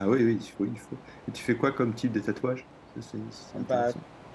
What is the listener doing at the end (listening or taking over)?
taking over